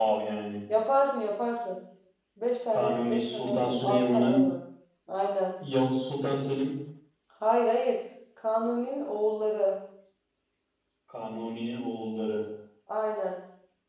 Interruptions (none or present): present